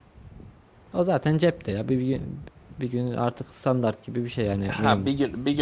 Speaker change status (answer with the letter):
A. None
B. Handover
B